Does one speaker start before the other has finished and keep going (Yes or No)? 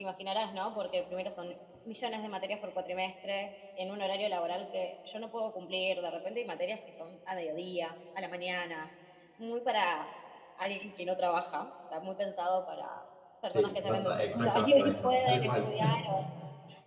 Yes